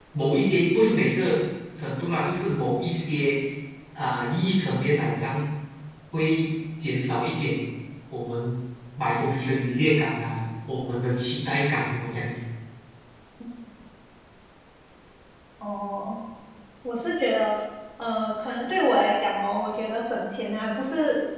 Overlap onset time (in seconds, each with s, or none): none